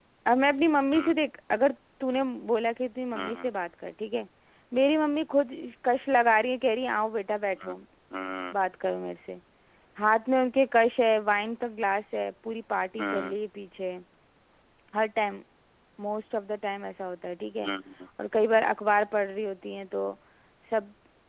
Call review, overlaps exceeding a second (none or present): none